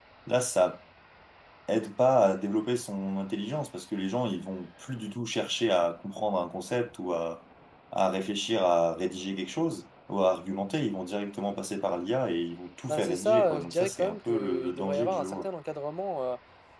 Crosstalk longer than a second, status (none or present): present